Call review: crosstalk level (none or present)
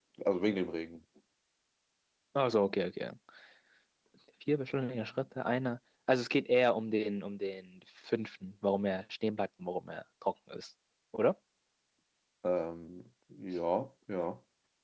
none